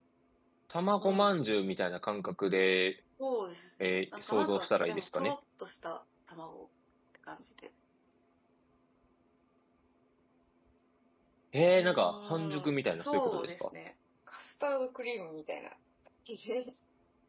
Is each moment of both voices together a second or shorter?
No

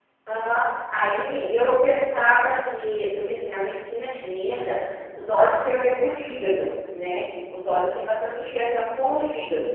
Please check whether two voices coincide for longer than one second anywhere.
No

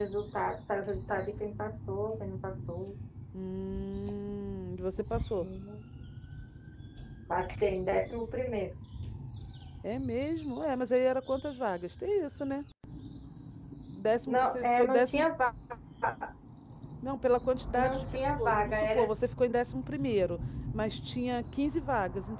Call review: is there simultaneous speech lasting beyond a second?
Yes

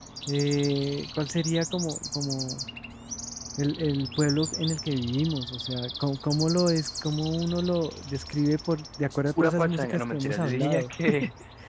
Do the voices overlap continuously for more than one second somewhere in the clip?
Yes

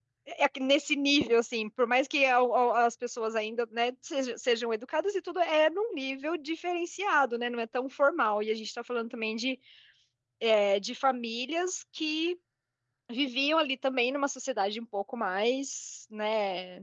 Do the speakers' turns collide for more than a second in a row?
No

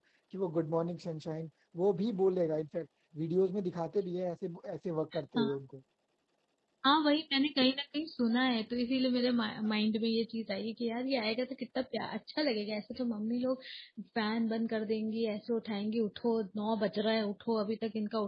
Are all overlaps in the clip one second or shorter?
Yes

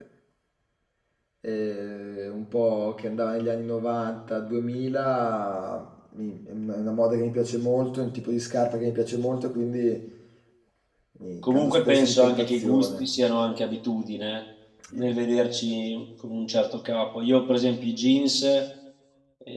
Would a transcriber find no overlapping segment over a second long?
No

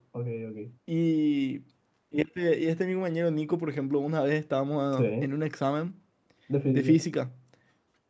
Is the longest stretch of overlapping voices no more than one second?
Yes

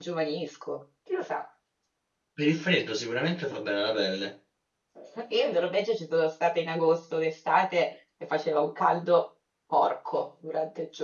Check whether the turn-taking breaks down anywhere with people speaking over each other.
No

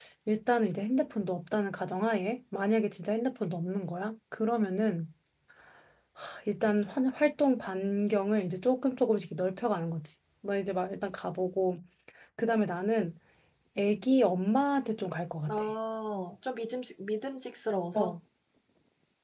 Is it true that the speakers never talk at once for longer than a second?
Yes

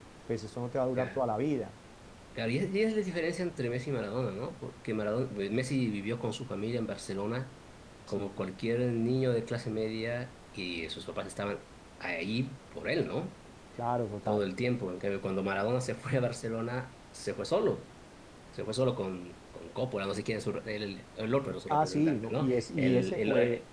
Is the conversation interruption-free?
No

